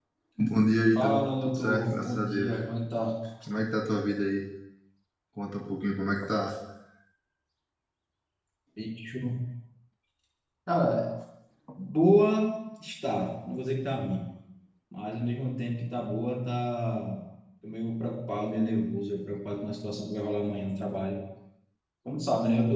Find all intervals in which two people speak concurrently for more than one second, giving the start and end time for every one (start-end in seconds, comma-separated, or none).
0.9-2.6